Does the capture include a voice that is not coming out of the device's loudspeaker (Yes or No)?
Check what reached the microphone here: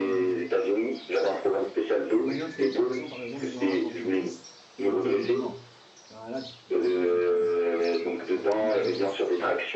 Yes